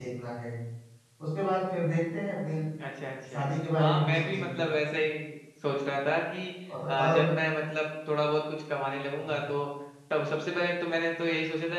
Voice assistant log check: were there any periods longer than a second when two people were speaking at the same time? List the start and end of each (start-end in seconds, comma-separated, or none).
3.3-4.6